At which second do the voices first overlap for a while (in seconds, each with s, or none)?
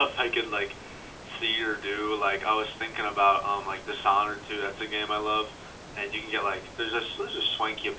none